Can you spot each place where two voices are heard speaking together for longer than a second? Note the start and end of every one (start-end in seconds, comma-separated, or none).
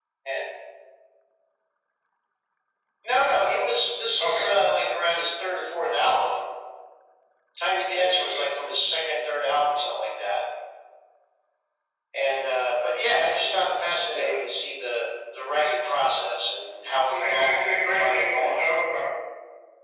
17.2-18.6